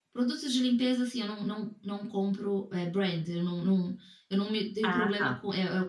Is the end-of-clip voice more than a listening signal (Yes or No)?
No